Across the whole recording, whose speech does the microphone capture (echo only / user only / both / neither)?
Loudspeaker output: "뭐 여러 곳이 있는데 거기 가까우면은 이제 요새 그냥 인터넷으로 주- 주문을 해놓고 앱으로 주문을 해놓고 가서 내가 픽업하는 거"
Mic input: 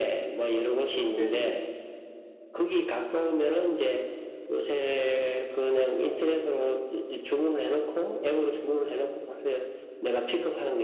both